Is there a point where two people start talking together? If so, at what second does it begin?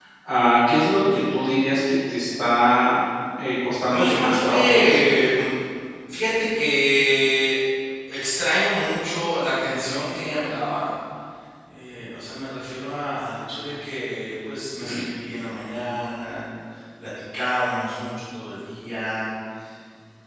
3.9 s

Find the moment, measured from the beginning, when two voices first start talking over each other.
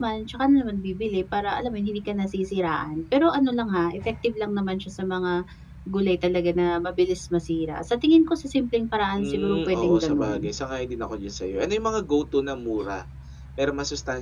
9.2 s

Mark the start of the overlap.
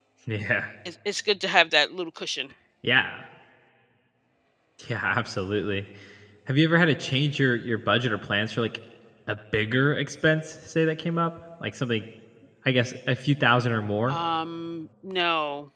none

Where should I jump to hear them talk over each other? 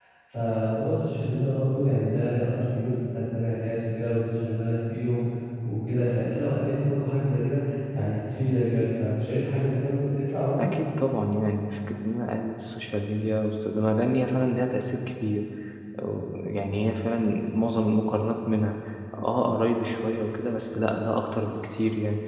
none

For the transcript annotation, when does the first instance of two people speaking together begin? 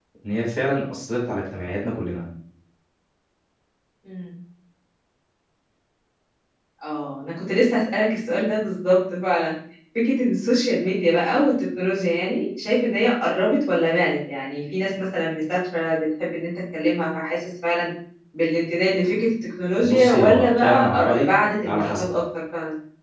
19.8 s

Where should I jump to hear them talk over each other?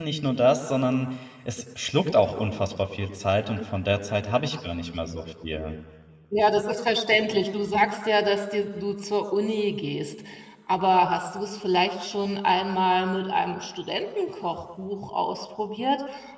none

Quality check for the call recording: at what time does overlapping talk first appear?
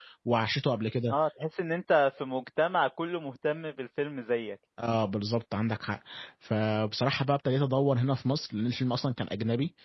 none

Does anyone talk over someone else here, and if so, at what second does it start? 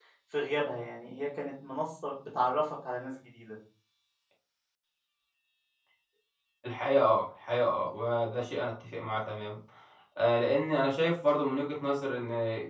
none

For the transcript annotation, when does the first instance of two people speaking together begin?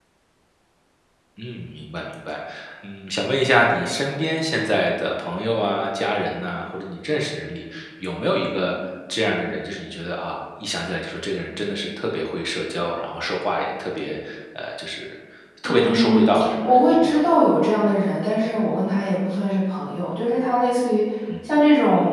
15.7 s

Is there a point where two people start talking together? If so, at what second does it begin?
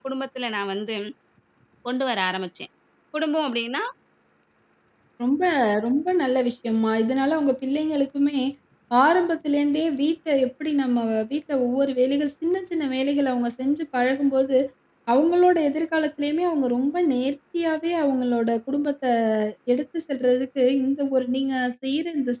none

